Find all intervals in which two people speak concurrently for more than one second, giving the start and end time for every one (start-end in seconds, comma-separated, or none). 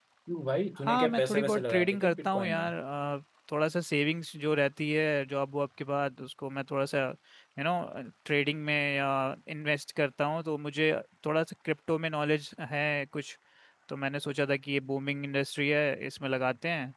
0.8-2.6